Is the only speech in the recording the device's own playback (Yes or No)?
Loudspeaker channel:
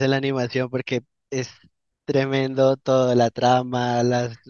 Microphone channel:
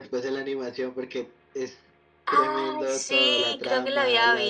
No